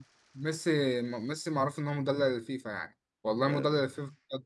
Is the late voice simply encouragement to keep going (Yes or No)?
Yes